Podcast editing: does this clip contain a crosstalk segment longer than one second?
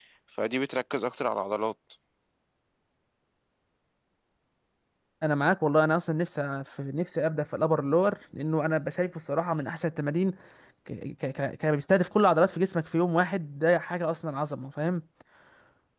No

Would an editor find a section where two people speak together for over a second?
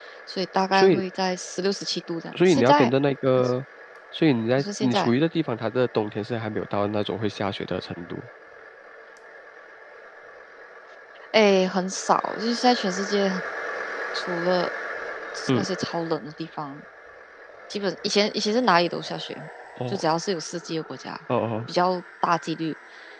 No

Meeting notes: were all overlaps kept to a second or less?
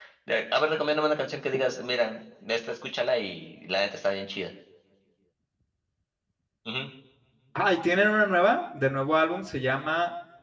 Yes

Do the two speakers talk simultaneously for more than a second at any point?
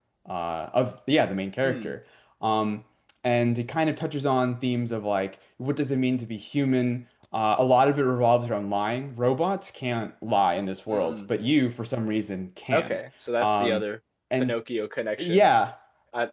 No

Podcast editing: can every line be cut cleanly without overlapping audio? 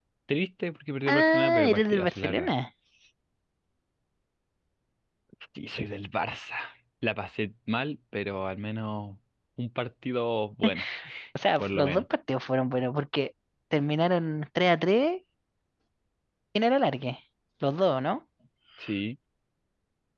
No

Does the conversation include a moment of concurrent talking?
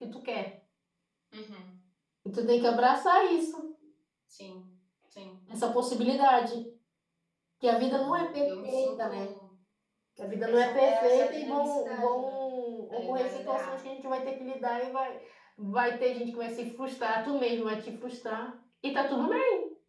Yes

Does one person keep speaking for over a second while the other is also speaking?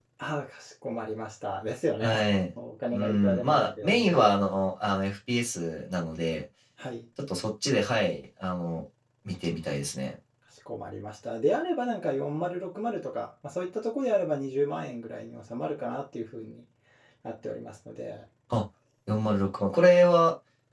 Yes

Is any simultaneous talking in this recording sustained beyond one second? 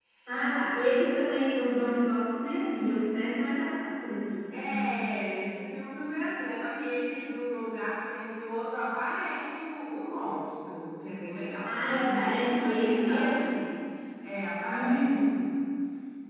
Yes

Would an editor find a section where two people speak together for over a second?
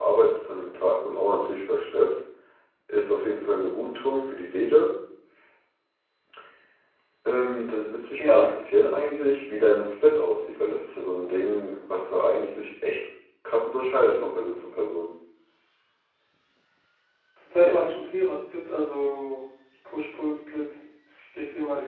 No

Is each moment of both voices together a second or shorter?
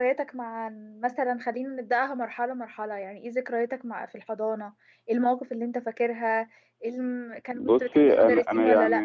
No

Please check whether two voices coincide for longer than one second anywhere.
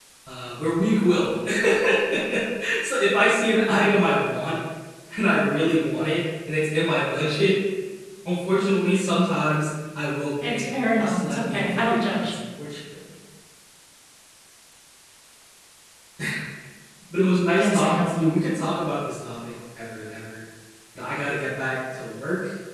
Yes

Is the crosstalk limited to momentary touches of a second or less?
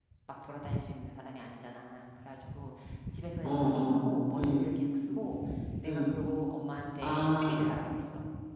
No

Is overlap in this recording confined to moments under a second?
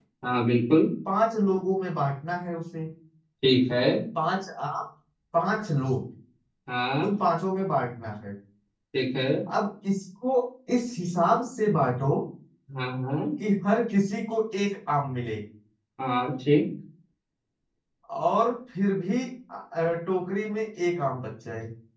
Yes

